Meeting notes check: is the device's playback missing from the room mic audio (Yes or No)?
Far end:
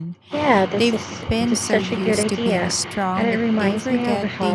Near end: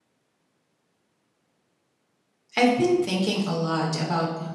Yes